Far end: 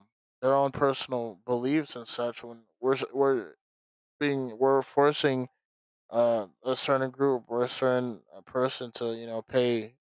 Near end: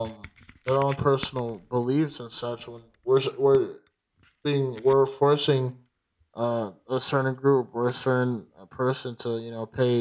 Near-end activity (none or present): none